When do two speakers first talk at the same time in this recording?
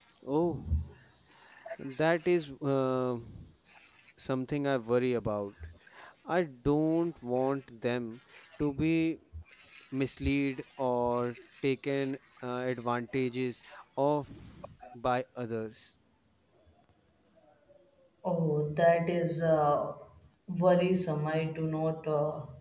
none

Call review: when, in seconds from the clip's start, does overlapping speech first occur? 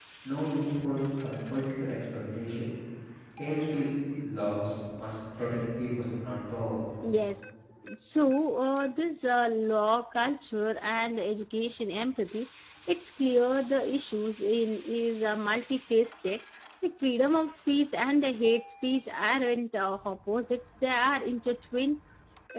none

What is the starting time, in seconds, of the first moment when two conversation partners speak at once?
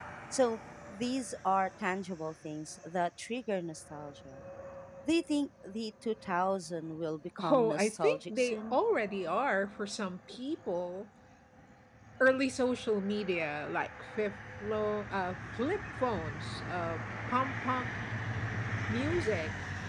7.4 s

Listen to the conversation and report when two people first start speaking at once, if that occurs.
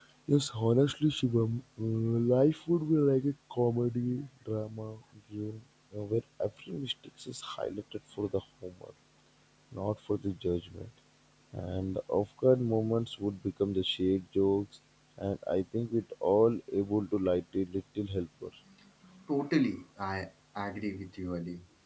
none

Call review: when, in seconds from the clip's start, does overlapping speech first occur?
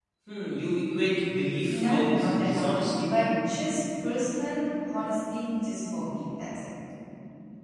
1.7 s

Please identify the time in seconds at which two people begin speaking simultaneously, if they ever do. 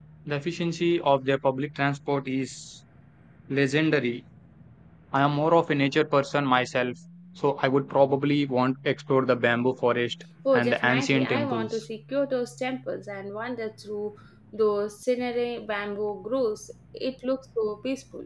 10.4 s

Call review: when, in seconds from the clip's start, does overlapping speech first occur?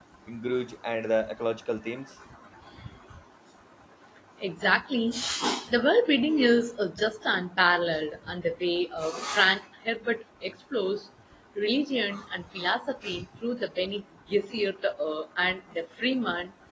none

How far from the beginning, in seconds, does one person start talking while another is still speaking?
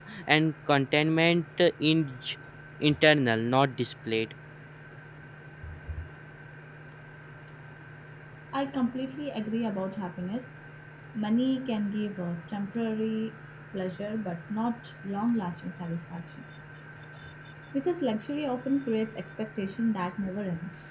none

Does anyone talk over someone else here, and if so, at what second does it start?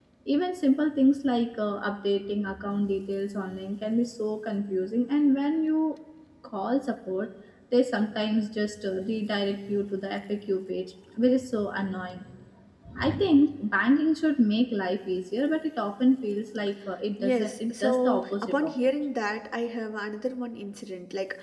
17.2 s

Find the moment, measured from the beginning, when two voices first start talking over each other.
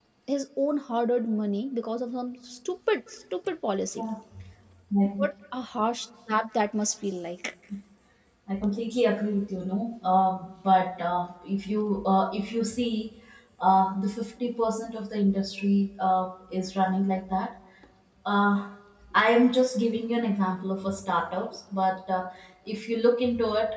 none

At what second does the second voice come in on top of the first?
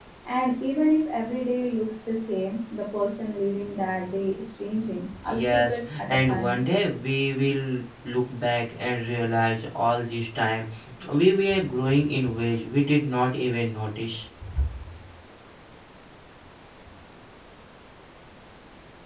5.1 s

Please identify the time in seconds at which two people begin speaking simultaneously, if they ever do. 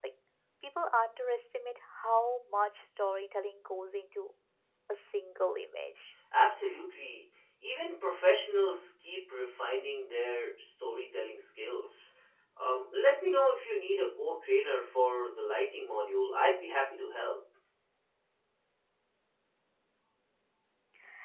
none

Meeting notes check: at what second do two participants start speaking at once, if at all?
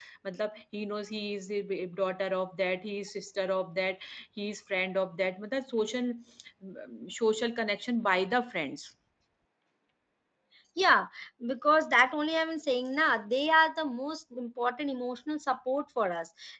none

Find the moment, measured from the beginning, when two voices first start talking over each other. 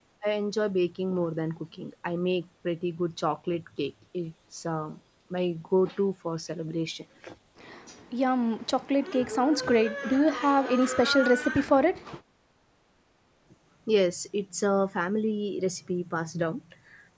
none

